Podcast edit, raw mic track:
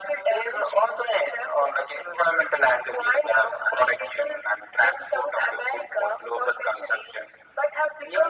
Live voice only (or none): none